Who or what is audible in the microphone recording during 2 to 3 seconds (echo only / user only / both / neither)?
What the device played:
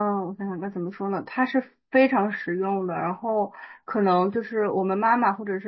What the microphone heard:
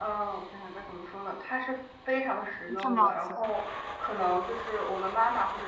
both